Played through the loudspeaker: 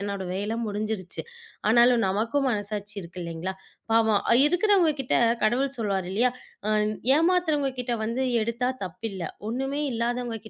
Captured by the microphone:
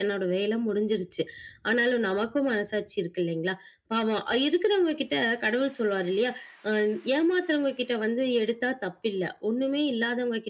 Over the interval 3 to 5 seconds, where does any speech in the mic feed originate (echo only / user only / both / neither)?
echo only